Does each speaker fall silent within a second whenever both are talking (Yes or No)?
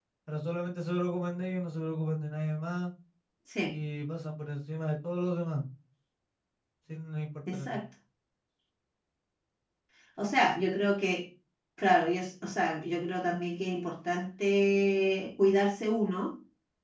Yes